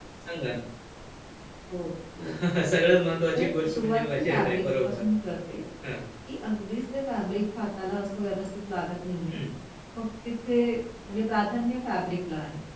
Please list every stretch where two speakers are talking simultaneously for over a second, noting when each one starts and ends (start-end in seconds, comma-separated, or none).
3.3-5.0